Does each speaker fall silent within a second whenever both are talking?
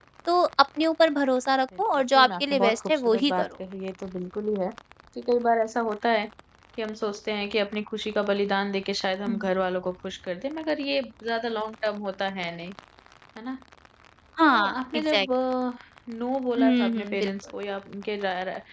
No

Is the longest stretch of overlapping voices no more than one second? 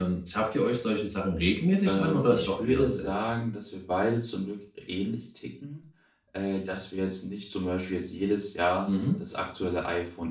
No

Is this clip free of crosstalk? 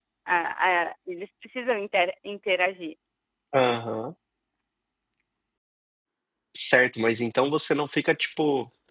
Yes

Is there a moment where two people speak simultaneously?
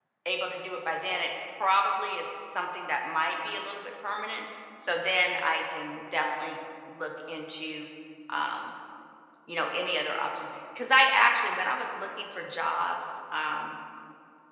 No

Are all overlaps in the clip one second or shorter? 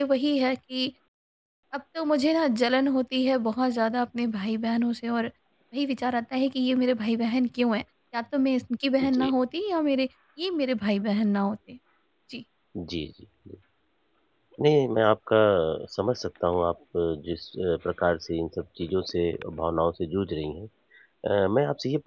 Yes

